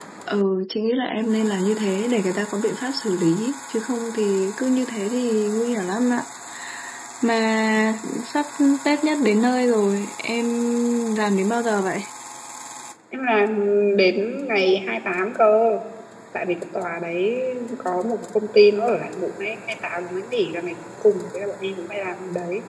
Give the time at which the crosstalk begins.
none

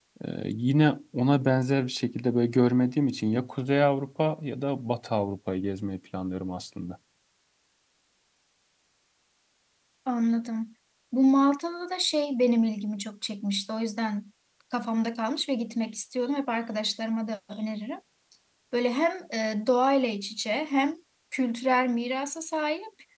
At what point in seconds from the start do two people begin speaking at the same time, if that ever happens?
none

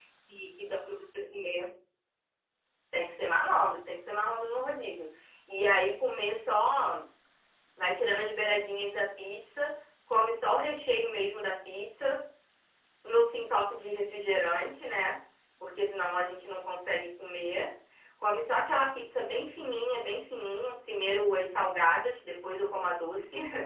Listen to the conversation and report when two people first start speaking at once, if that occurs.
none

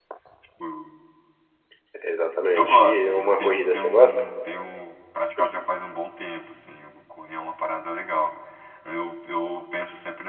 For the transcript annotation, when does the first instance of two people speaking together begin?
3 s

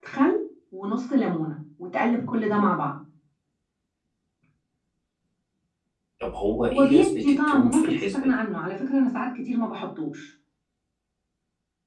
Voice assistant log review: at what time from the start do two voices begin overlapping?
7 s

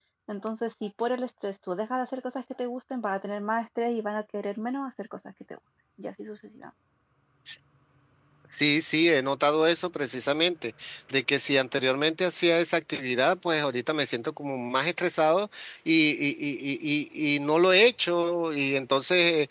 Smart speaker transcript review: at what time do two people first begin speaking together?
none

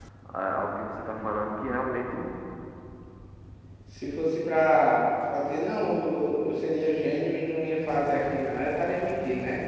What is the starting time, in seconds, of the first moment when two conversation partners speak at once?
none

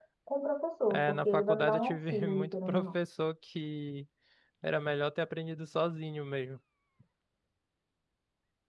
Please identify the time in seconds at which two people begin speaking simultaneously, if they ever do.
1 s

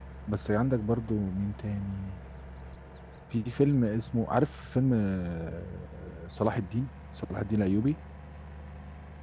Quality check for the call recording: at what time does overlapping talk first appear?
none

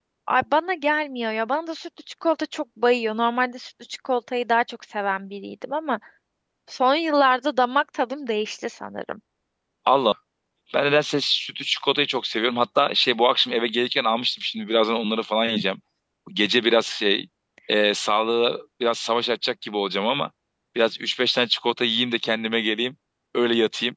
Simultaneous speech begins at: none

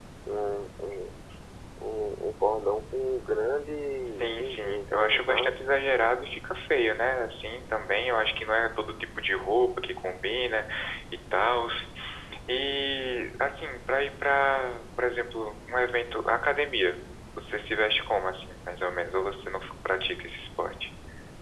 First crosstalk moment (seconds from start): 4 s

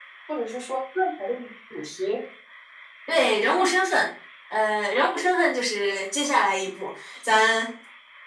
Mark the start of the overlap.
none

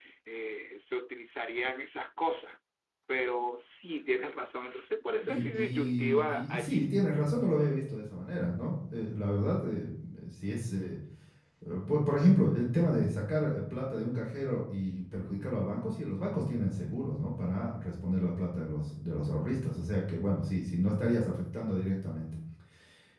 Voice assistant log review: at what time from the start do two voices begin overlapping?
5 s

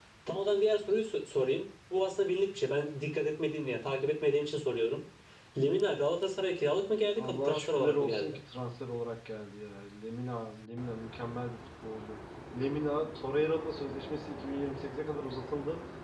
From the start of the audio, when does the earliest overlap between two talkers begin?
7 s

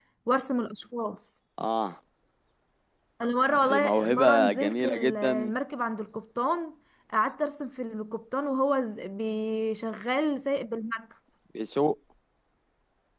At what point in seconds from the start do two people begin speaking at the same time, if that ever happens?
4 s

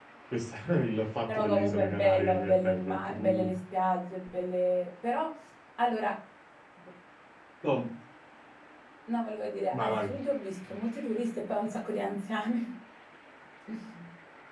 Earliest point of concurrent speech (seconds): 1 s

